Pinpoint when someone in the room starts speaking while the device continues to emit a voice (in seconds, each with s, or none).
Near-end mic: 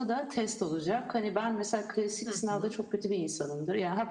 2.2 s